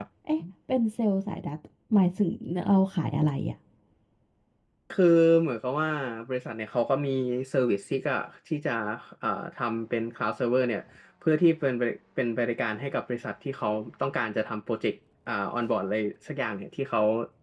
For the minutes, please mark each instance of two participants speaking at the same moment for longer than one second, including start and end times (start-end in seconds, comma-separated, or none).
none